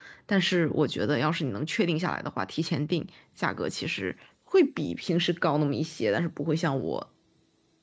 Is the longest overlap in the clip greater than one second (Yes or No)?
No